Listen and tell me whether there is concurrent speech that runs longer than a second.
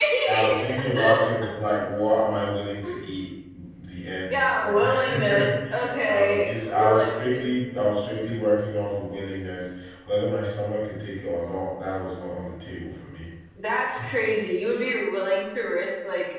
Yes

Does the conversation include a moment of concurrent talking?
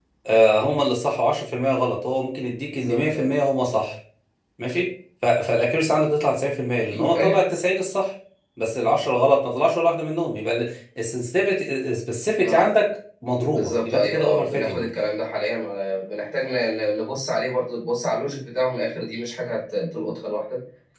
Yes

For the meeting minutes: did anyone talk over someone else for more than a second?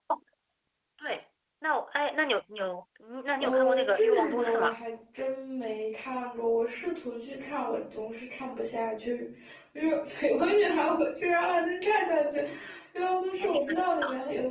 Yes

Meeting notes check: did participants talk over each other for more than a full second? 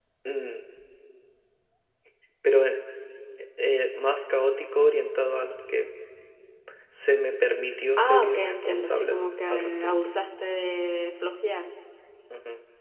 Yes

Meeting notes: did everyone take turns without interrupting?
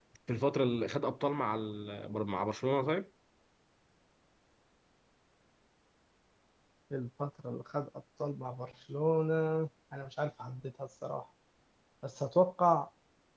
Yes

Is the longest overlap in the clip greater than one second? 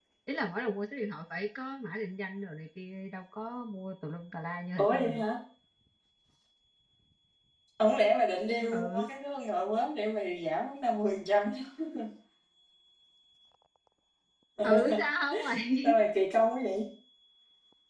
No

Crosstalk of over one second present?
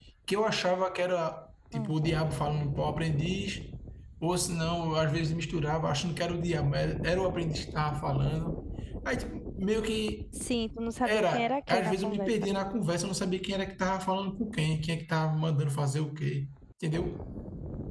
Yes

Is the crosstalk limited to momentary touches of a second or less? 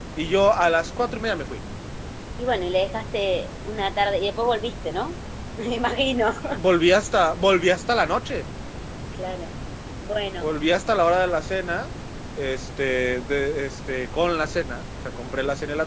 Yes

